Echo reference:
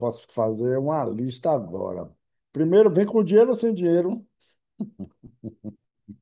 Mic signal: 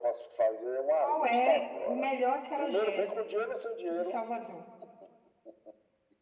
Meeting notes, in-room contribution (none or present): present